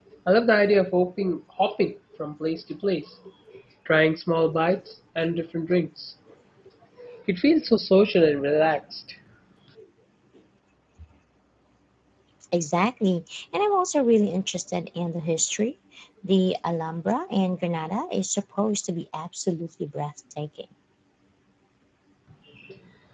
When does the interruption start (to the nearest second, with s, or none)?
none